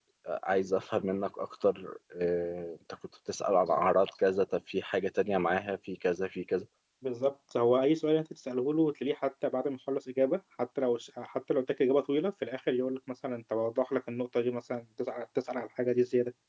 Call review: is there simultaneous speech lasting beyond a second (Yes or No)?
No